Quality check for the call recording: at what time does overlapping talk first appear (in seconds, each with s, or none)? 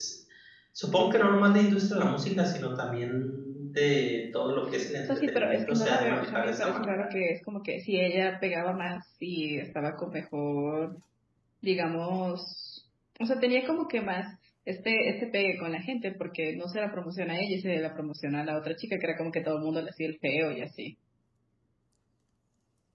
5.0 s